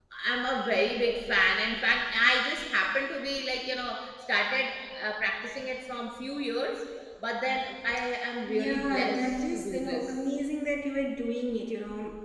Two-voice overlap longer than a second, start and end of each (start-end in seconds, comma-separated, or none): 8.5-10.1